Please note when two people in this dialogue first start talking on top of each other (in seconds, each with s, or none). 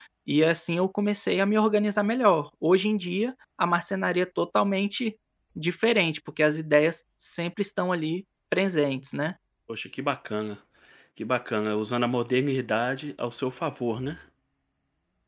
none